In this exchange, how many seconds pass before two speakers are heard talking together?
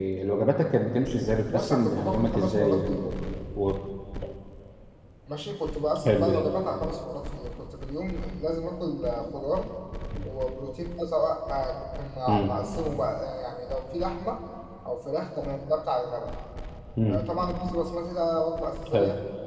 1.5 s

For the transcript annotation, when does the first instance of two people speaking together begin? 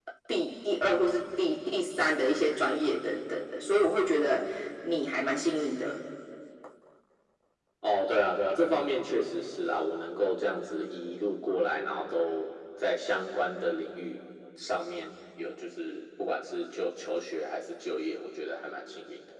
none

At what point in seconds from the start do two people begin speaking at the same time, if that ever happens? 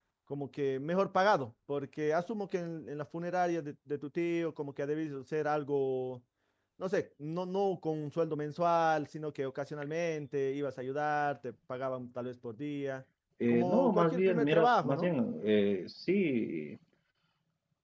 13.5 s

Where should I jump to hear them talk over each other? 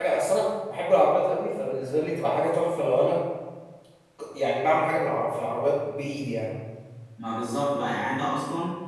none

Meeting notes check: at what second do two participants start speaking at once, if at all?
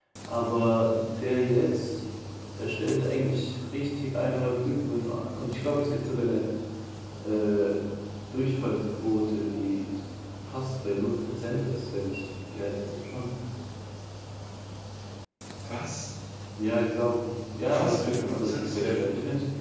17.7 s

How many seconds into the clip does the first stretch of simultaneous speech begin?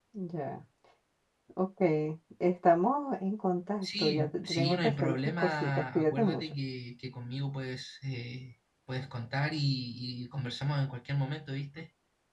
3.8 s

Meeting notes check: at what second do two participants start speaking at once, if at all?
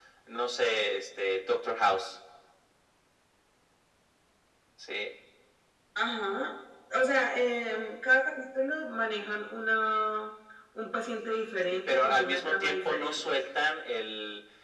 11.7 s

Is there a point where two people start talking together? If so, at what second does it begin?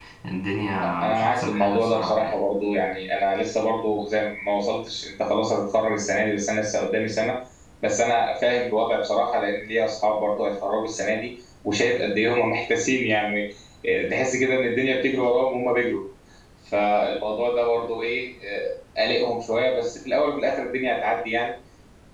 0.8 s

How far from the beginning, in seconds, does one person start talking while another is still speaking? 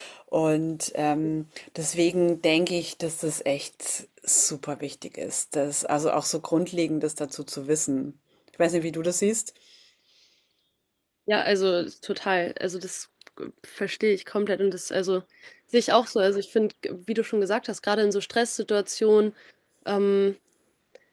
none

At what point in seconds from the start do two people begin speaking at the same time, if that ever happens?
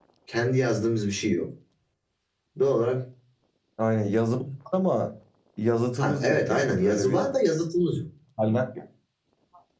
6.0 s

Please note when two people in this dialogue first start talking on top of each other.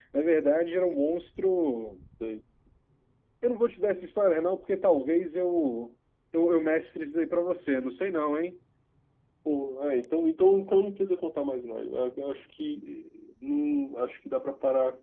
none

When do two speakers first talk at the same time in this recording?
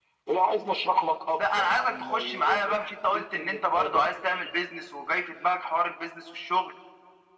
1.4 s

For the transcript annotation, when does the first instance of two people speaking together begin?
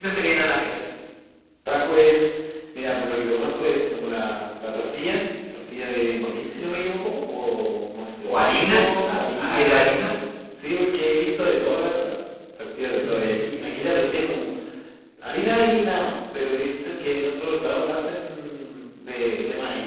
8.2 s

